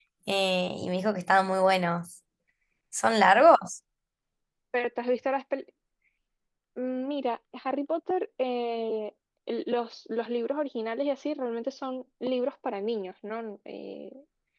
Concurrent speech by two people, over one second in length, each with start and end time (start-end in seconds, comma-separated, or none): none